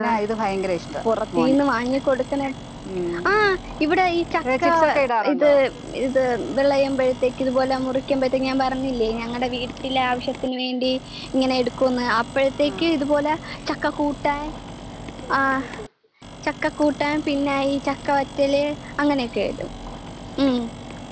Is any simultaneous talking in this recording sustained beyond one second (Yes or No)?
No